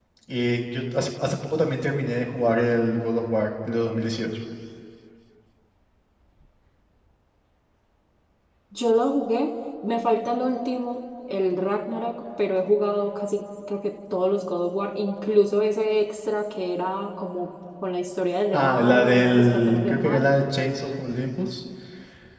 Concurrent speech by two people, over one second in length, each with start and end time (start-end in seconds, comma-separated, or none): 18.5-20.2